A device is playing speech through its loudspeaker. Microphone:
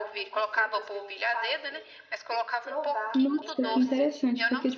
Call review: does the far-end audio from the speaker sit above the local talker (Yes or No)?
No